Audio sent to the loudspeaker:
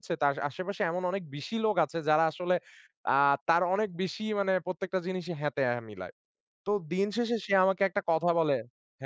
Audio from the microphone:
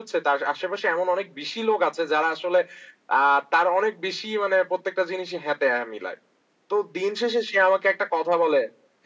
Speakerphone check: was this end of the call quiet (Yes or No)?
Yes